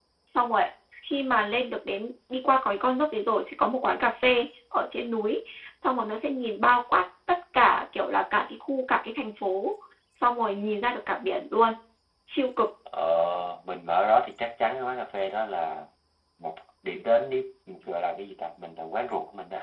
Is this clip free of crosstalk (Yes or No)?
Yes